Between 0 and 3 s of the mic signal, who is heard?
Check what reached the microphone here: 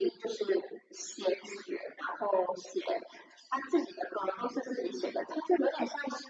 echo only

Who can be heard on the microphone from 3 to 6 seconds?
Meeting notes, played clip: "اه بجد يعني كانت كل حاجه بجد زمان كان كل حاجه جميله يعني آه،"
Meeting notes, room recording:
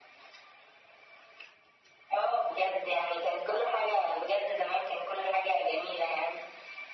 echo only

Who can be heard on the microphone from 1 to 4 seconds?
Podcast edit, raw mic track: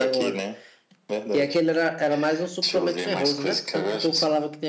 both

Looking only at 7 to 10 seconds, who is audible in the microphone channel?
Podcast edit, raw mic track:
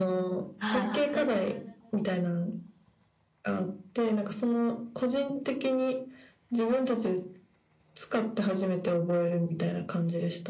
echo only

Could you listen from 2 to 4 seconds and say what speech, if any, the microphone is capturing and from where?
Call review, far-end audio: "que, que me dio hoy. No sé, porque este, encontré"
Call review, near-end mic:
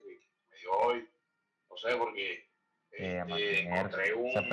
both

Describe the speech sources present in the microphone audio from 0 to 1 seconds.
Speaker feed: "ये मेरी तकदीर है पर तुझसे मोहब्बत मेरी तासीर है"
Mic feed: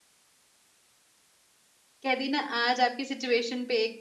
neither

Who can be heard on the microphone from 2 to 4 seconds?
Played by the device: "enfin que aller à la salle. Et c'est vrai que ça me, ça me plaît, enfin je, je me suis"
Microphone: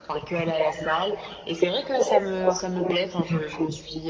echo only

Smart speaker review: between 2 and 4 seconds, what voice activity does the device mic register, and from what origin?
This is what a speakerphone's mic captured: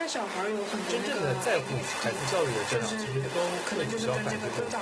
both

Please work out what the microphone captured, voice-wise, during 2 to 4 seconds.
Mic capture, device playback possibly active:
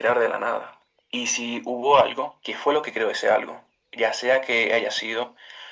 echo only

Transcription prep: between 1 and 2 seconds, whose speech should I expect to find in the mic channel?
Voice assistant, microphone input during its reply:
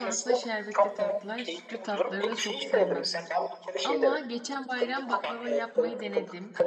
both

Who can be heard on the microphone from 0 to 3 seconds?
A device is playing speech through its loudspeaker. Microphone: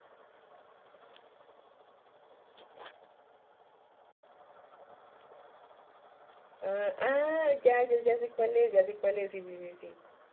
neither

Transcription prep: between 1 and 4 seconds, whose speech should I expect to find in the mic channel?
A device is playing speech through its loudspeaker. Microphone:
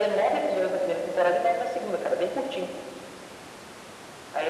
echo only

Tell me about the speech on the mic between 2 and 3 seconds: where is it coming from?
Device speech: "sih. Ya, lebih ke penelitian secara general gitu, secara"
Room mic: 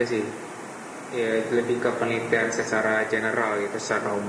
echo only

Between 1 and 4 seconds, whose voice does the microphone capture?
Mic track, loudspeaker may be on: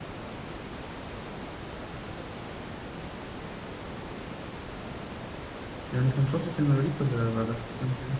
neither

